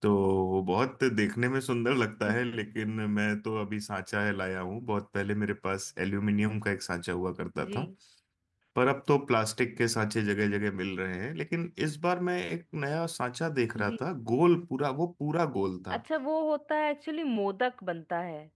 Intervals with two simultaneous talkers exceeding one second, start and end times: none

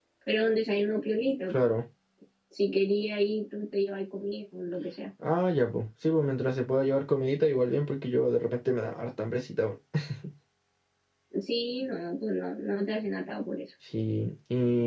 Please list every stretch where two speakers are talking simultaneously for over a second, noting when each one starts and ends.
none

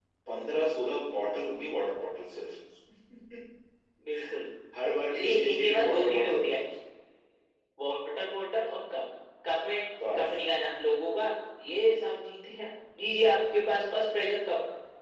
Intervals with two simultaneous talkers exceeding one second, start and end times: 5.1-6.4

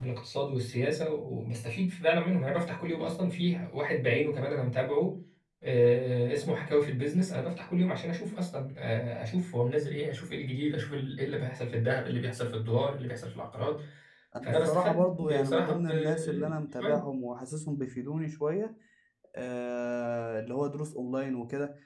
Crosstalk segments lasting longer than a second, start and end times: 14.4-17.0

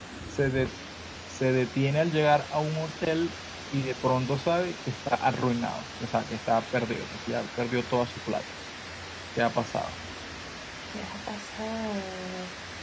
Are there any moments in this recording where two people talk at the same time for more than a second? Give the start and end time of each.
none

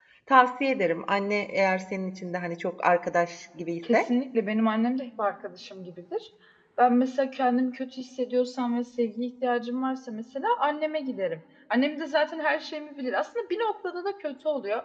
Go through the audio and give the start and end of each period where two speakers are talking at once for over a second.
none

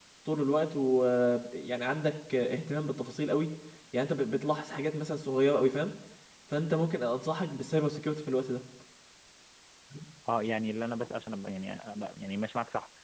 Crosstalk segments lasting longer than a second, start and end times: none

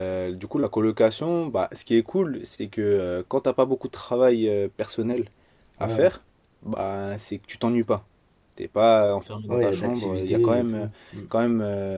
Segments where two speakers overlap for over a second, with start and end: 9.5-10.8

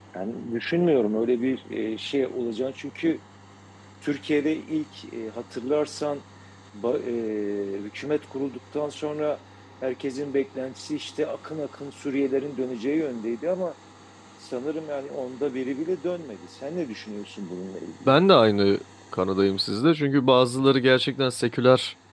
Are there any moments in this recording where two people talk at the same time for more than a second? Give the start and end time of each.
none

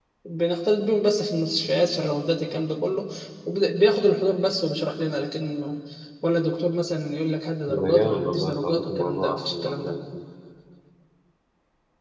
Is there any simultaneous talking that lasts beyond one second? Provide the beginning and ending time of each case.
7.8-10.0

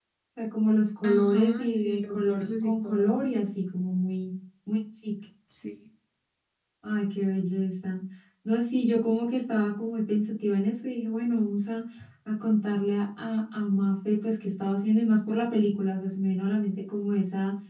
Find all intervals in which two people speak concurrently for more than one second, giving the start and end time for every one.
1.0-3.3

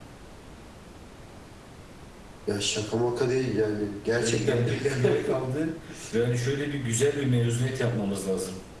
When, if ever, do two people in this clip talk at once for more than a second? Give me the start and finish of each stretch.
4.2-5.4

